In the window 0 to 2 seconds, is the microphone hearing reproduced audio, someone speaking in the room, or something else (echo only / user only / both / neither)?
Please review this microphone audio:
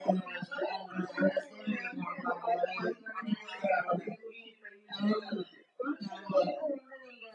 echo only